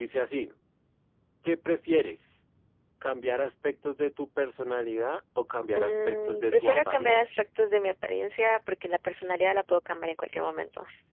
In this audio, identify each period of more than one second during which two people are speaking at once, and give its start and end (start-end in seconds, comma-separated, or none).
5.8-7.4